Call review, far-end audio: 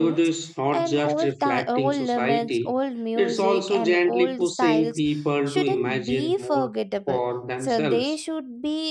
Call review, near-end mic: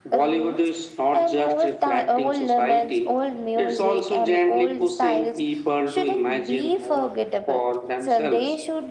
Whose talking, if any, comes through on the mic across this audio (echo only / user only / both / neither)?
echo only